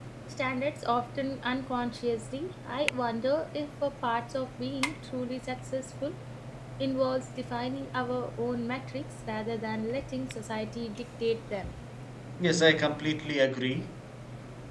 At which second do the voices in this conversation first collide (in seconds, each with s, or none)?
none